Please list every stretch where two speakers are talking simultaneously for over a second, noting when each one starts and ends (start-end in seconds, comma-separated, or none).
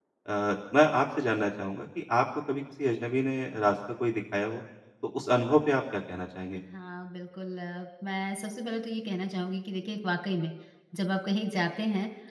none